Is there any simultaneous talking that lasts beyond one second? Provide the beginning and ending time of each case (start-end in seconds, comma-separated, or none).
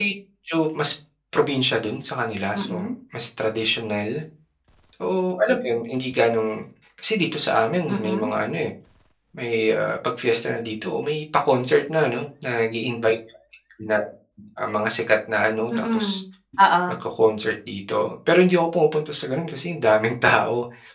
none